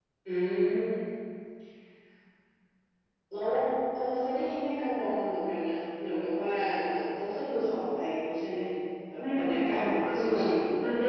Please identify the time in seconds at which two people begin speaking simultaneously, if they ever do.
9.2 s

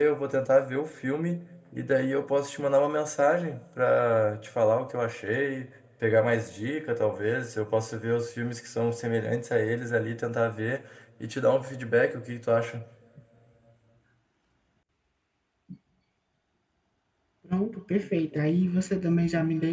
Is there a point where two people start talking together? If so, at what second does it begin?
none

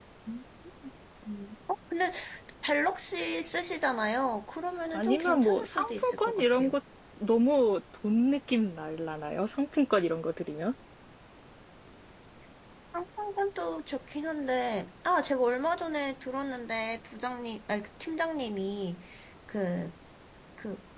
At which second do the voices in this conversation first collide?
4.9 s

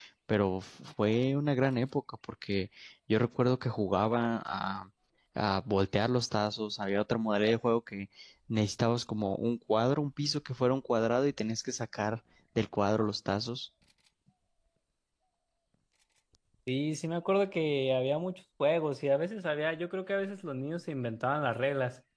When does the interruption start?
none

